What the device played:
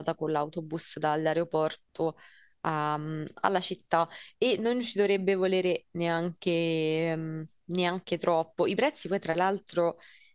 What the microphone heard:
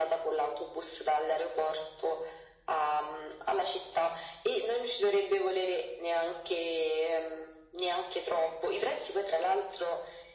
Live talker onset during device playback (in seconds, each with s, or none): none